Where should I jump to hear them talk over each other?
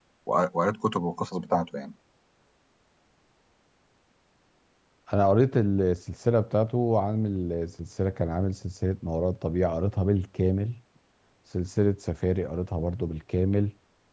none

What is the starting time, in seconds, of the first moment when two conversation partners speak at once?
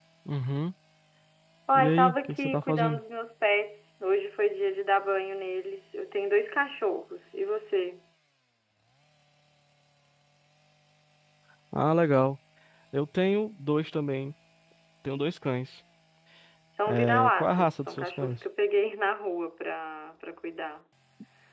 1.7 s

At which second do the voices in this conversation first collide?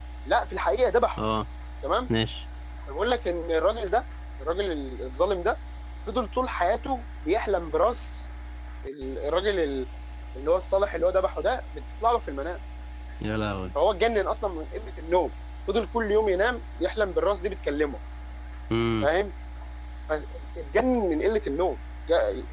none

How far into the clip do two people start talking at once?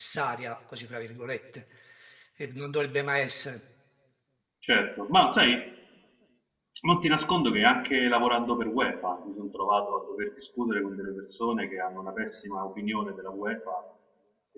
none

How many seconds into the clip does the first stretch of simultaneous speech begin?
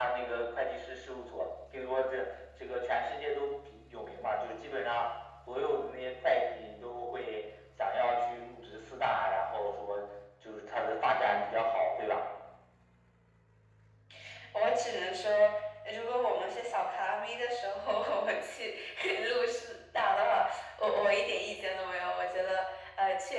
none

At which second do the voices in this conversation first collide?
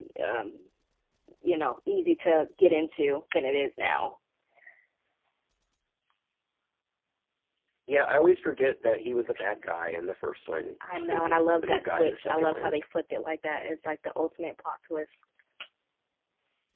10.8 s

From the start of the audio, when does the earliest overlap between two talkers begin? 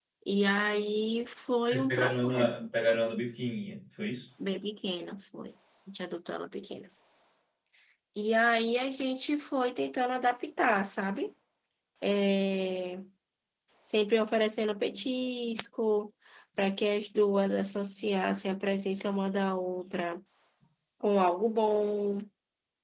1.6 s

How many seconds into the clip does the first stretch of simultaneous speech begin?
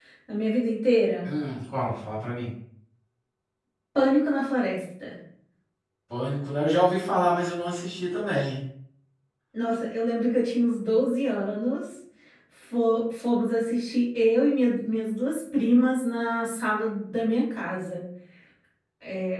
none

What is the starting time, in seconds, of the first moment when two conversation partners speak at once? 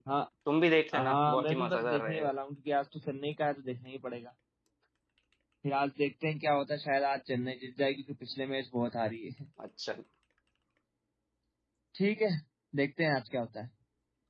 0.9 s

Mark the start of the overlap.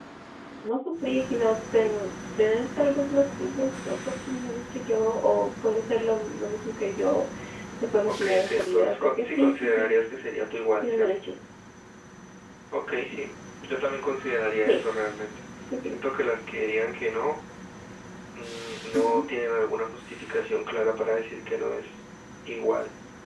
8.2 s

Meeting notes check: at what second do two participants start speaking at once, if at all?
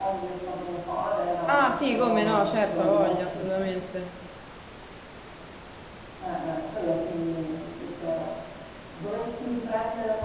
1.5 s

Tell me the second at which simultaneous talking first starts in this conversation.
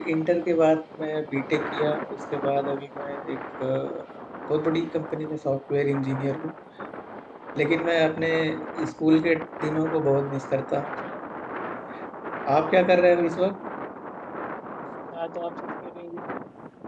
none

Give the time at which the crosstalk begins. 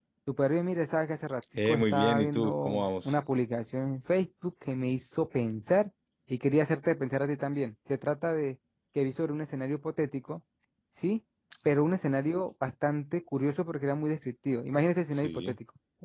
1.6 s

